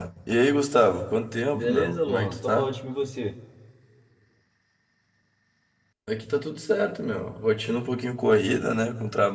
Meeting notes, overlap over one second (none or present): present